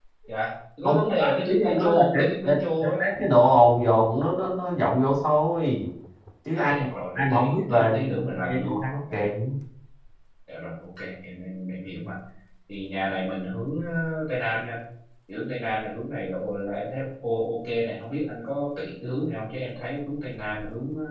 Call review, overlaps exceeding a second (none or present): present